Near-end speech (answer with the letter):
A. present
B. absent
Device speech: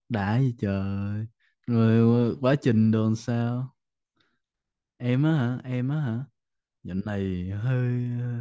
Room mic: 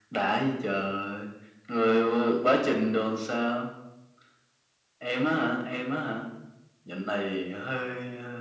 B